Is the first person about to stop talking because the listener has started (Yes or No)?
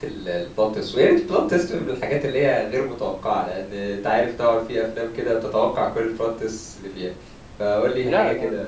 Yes